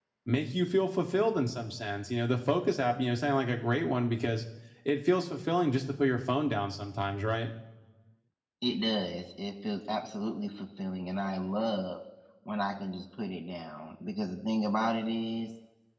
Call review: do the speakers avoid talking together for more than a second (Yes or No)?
Yes